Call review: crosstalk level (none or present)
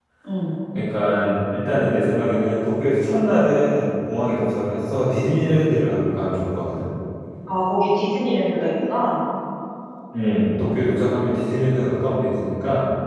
none